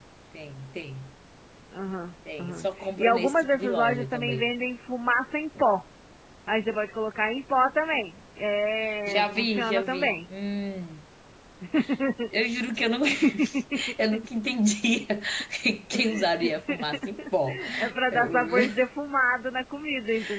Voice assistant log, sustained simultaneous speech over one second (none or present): present